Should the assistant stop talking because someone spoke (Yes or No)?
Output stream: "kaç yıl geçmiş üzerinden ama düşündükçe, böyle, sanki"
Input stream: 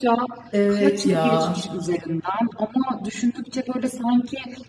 Yes